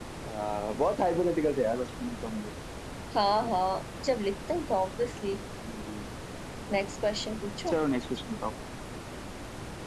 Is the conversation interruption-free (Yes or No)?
Yes